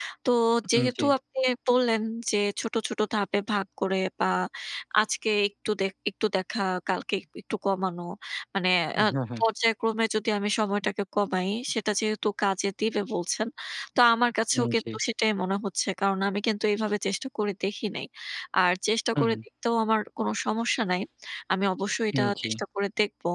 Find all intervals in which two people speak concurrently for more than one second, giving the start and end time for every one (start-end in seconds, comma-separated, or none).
none